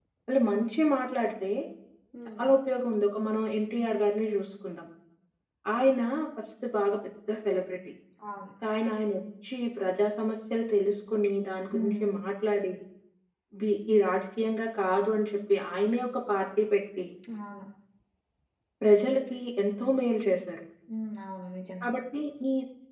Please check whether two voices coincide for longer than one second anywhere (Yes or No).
No